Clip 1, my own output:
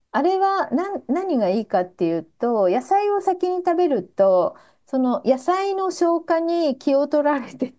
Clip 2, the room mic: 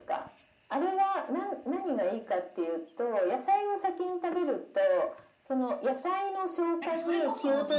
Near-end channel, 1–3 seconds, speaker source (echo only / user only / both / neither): echo only